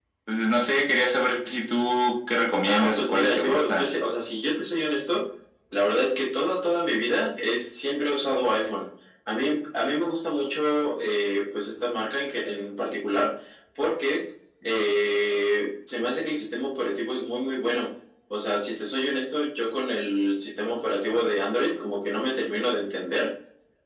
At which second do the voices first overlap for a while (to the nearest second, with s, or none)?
3 s